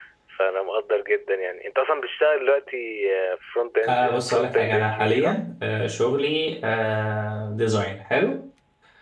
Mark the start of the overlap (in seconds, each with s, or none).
3.8 s